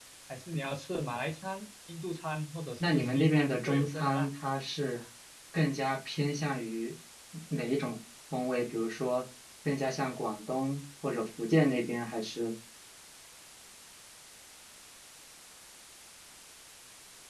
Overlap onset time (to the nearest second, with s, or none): 3 s